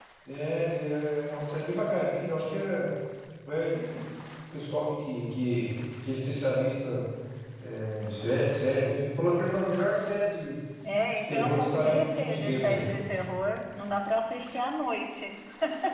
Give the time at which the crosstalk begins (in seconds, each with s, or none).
11.3 s